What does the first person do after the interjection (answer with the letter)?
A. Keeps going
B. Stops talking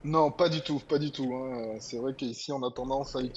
A